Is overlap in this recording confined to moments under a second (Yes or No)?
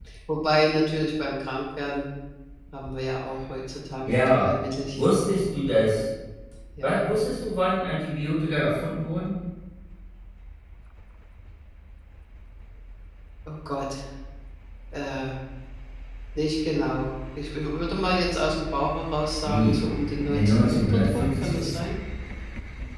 No